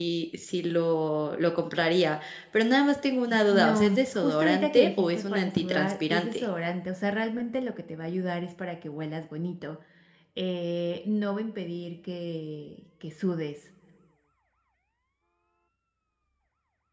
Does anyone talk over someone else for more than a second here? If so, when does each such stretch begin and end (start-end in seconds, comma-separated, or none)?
3.5-6.5